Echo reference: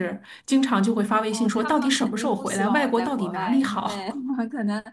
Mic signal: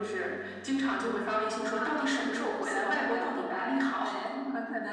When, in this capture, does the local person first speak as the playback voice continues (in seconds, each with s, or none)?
none